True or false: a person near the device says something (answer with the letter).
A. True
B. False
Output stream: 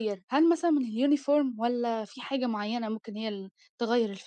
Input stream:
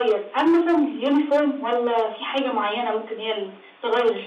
B